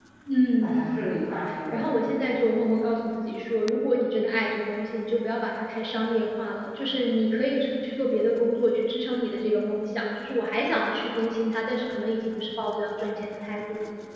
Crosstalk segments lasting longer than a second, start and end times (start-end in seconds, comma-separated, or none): none